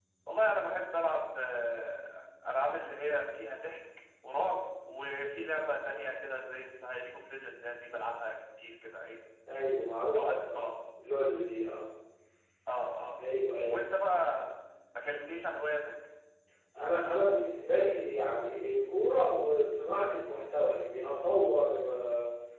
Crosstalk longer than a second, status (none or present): none